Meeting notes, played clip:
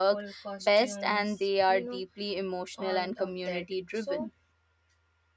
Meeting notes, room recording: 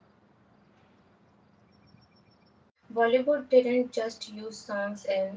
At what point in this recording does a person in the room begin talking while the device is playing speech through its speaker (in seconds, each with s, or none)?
2.9 s